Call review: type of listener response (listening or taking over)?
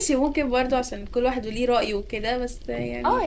taking over